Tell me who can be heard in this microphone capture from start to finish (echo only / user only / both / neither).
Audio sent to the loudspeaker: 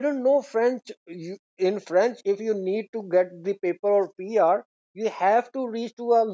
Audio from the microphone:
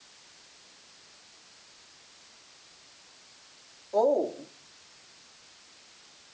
user only